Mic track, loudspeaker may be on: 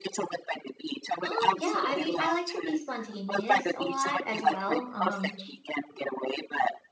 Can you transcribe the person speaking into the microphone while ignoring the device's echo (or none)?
Um, yeah, I mean, I like to be spontaneous a lot as well. Um,